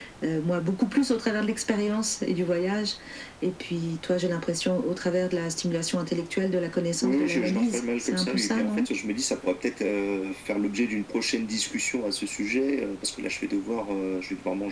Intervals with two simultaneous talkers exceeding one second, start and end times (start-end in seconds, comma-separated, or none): 7.0-8.9